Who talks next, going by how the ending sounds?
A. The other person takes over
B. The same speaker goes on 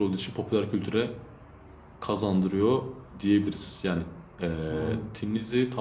B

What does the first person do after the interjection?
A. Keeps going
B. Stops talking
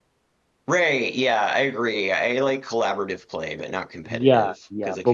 B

